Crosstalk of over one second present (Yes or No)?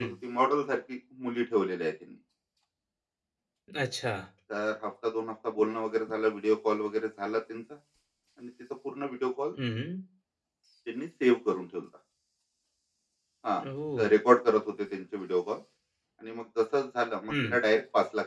No